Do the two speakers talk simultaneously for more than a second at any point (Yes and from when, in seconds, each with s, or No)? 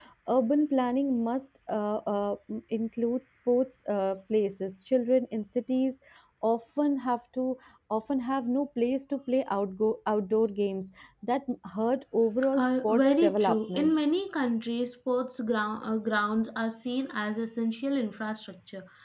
Yes, from 12.5 s